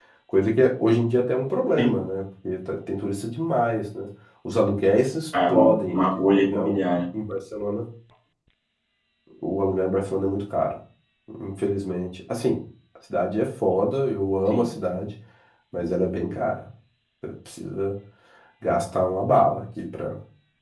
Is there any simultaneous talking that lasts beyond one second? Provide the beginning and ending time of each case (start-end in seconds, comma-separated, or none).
5.5-6.8